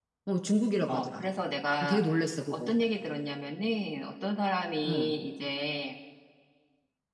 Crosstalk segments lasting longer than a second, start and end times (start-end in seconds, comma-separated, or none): none